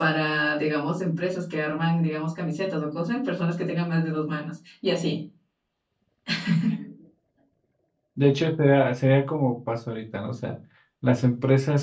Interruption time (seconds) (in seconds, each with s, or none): none